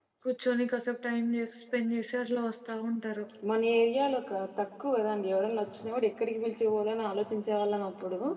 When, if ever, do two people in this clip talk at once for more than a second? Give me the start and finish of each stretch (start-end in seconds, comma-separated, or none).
none